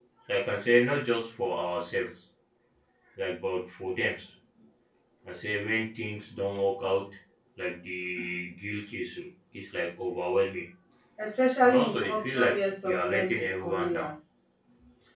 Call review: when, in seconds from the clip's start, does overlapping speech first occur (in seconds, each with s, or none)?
11.6 s